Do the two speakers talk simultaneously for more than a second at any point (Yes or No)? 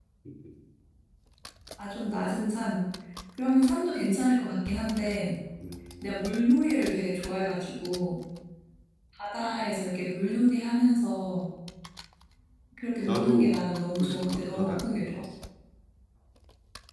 Yes